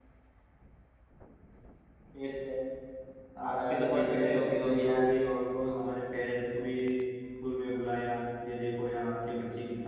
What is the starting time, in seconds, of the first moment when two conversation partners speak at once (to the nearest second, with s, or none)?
3 s